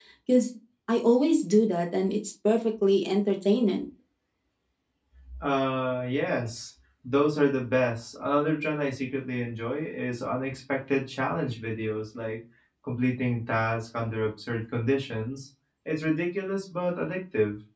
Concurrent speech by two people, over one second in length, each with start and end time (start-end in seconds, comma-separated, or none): none